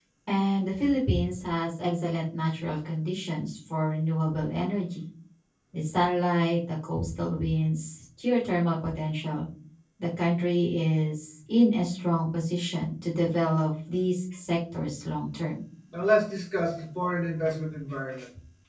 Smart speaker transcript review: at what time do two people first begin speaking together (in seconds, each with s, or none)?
none